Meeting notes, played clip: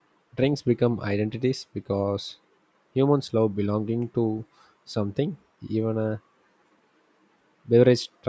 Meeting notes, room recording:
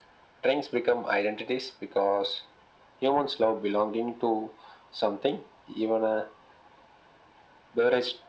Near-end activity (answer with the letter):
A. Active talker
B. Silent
B